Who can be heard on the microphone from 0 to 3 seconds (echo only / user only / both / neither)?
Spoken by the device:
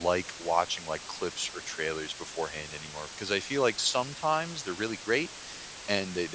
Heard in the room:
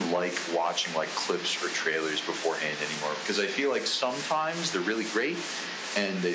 echo only